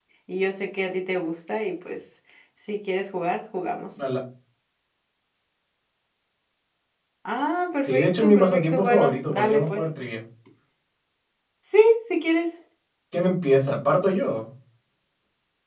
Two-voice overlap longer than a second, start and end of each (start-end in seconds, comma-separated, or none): 7.8-9.8